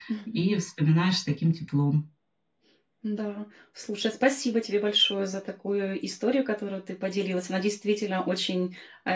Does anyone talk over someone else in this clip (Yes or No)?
No